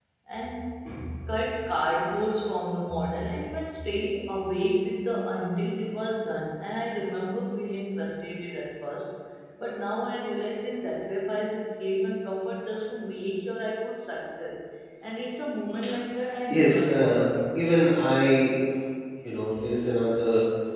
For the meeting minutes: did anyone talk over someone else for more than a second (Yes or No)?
Yes